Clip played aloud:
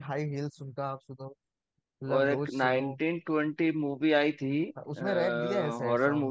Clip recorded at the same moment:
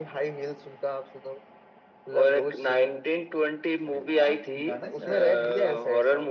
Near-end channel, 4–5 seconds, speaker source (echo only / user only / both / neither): both